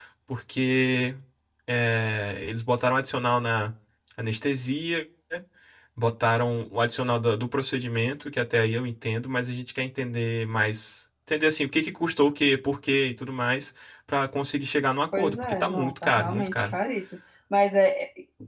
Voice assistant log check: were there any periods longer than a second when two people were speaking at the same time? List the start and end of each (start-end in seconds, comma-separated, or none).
15.1-16.7